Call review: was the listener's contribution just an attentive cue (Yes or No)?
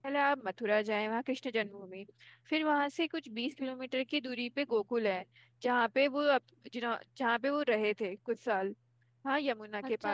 No